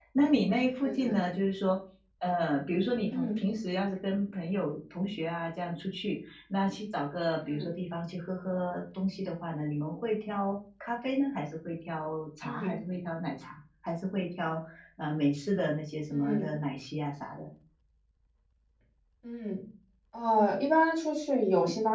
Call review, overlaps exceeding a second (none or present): none